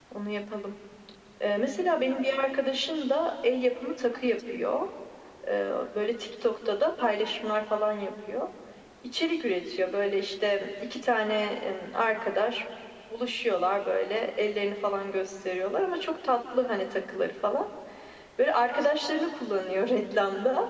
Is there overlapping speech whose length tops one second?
No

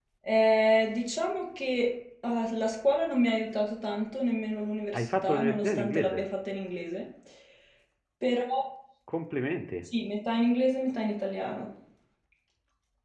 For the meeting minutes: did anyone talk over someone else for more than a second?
Yes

